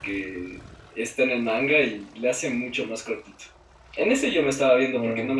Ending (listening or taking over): listening